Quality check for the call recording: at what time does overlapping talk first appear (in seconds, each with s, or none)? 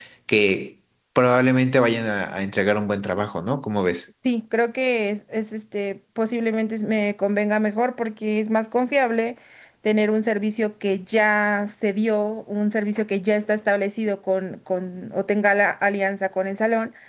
none